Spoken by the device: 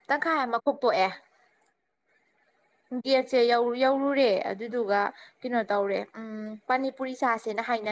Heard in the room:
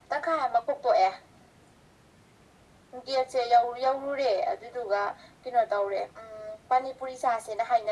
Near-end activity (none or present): none